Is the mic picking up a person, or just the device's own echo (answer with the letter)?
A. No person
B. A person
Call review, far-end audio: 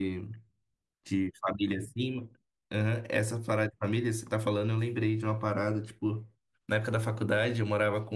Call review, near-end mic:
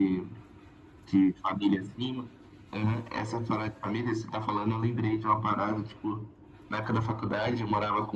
A